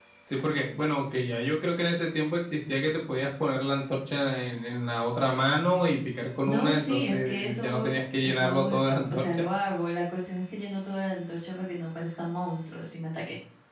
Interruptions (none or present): present